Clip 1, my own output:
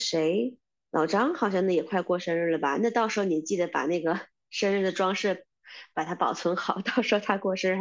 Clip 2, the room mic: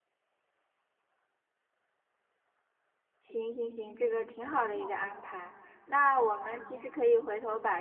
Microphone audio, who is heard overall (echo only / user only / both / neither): user only